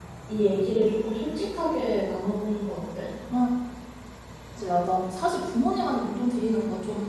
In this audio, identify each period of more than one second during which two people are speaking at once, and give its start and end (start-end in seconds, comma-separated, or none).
none